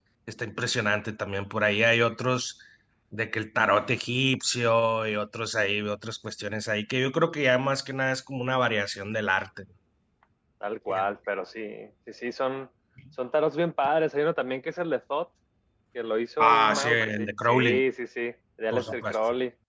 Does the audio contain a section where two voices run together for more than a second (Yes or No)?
Yes